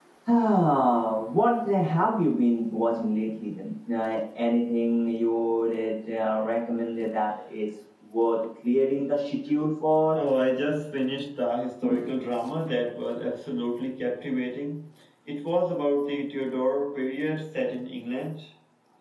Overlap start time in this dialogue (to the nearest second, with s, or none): none